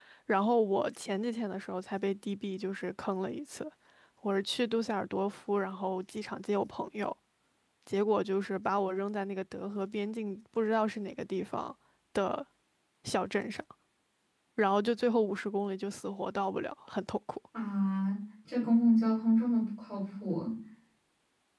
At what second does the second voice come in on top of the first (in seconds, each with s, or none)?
none